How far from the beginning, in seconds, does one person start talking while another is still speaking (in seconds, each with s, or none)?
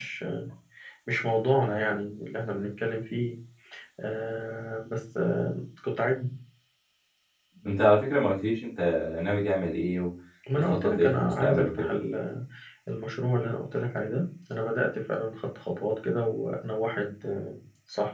10.5 s